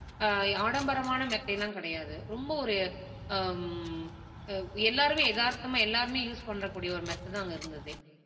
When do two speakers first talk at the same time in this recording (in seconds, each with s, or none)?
none